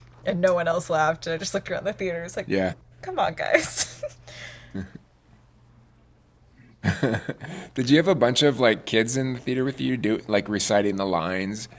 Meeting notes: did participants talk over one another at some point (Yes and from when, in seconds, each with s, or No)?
No